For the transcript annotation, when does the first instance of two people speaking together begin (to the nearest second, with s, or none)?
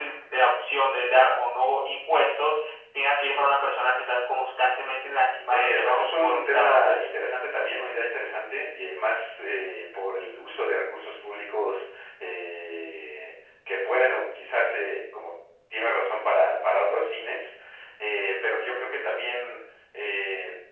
6 s